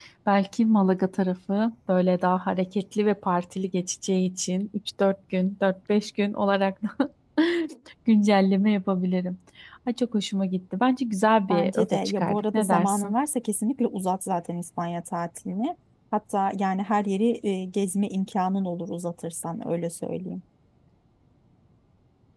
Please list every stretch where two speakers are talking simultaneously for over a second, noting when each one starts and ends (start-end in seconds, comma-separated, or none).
11.5-13.1